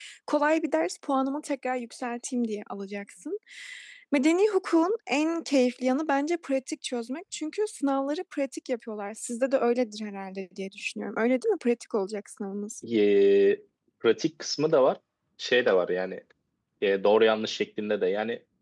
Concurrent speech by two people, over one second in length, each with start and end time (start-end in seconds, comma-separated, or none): none